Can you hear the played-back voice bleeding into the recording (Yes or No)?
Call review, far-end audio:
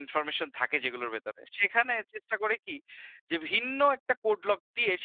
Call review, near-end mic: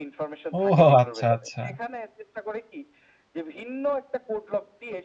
Yes